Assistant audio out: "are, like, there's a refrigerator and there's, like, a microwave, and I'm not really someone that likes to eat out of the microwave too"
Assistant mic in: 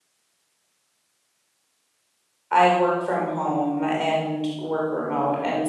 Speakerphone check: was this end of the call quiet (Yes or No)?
No